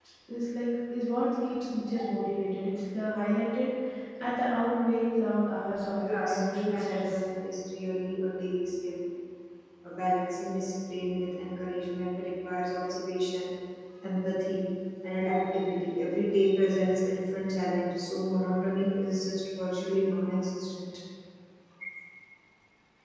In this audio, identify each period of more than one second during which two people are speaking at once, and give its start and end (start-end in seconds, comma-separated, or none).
5.9-7.2